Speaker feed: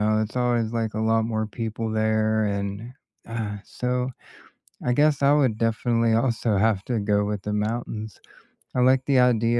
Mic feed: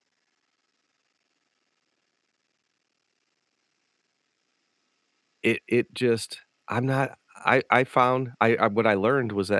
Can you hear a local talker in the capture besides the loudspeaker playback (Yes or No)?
Yes